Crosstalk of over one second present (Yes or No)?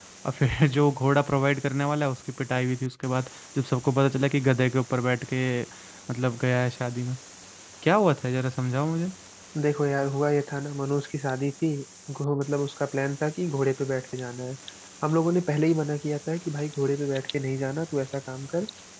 No